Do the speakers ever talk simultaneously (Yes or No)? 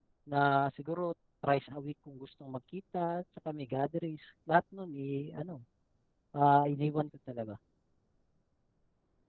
No